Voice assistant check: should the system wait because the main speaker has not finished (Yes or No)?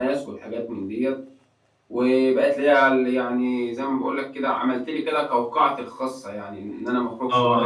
No